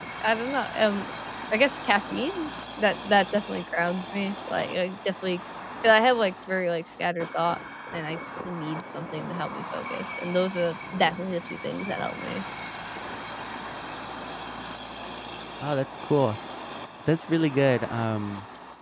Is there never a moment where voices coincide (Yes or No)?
Yes